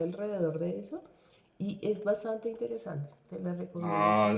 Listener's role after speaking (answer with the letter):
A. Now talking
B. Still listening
A